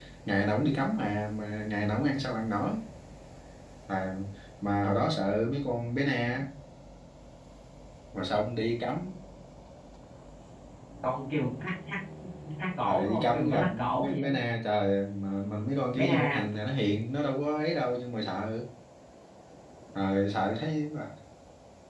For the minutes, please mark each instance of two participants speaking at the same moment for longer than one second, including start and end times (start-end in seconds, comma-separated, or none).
12.8-14.3